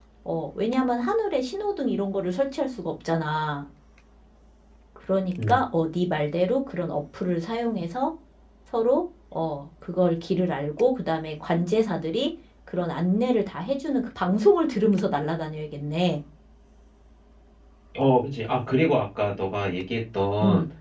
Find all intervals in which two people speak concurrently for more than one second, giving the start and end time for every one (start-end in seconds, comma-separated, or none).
none